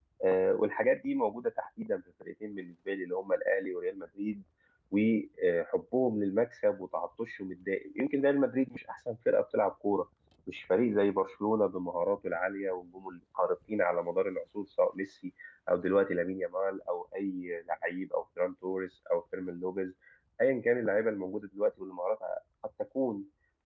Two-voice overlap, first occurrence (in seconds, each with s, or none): none